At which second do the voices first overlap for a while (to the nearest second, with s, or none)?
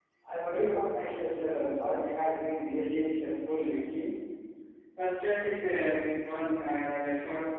none